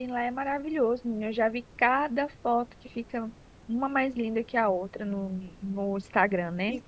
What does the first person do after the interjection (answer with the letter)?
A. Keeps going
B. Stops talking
B